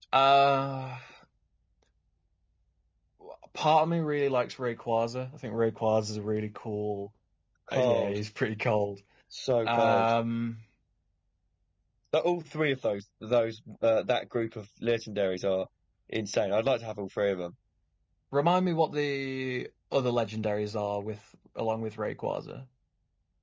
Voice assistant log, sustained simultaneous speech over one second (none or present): none